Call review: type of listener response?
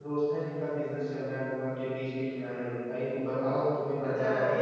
taking over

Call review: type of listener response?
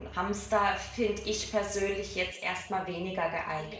taking over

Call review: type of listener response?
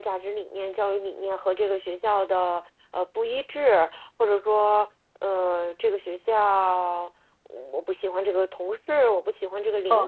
taking over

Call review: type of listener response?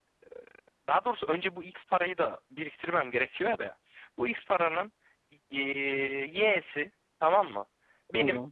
listening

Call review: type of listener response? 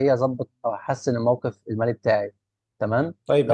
taking over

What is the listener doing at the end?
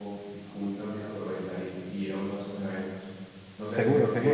listening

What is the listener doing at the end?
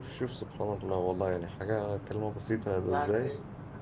listening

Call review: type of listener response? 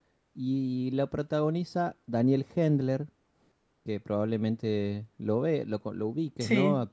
listening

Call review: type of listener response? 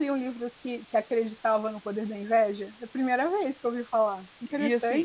taking over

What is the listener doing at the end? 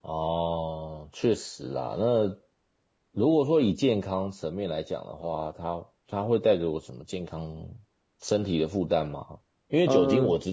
listening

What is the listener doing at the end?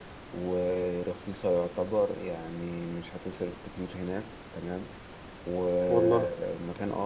listening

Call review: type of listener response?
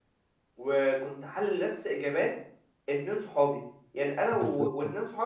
listening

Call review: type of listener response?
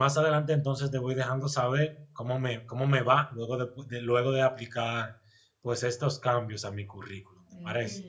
taking over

